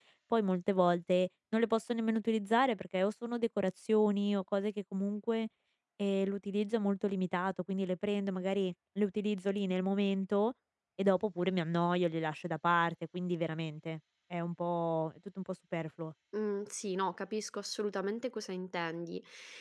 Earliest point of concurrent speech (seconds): none

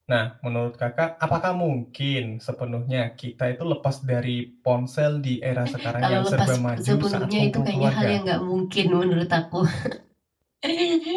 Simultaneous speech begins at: 5.8 s

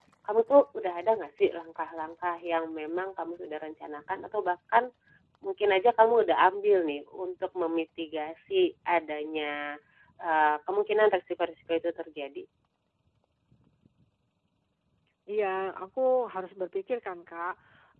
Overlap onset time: none

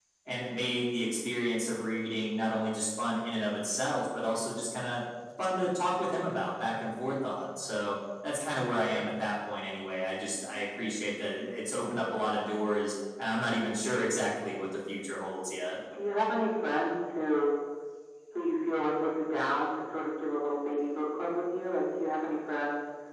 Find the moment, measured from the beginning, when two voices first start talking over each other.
none

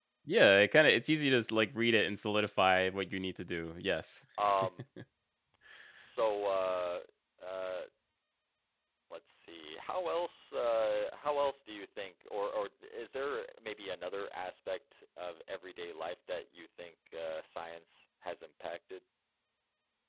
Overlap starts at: none

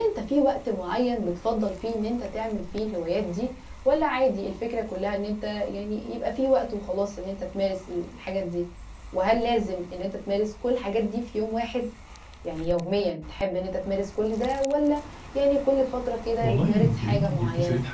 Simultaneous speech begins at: 16.4 s

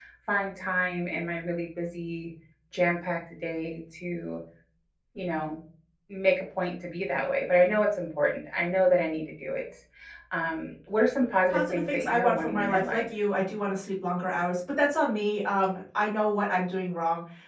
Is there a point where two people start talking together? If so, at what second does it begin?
11.5 s

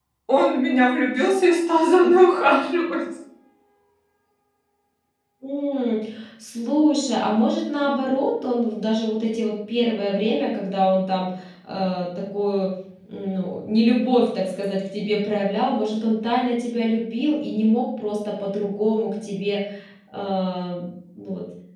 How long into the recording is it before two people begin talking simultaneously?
none

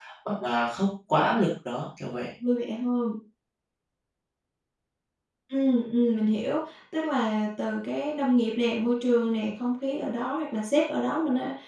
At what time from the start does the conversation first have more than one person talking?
none

